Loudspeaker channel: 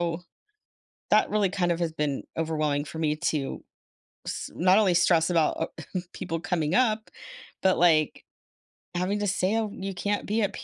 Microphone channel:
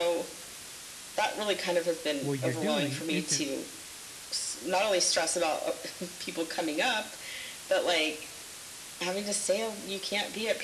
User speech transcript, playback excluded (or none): what you're doing isn't